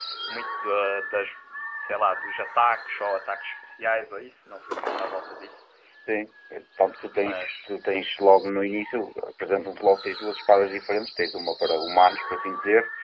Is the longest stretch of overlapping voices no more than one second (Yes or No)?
Yes